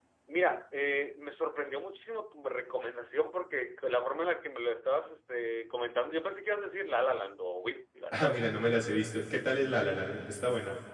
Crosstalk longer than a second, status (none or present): none